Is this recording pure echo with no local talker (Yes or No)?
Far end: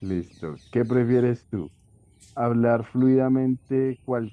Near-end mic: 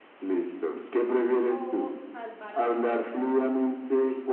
No